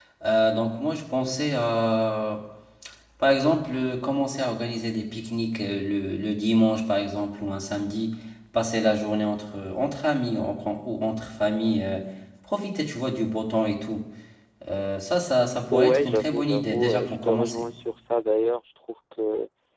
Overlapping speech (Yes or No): Yes